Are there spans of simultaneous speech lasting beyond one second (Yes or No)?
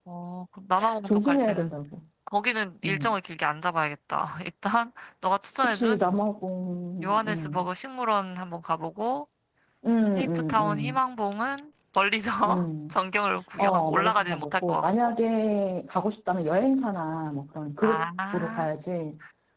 Yes